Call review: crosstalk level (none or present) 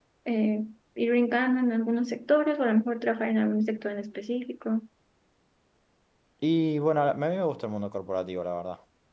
none